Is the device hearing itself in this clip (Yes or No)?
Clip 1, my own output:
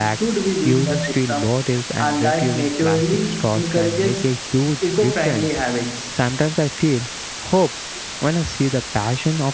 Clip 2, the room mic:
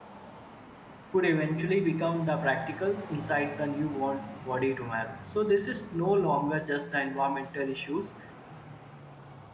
No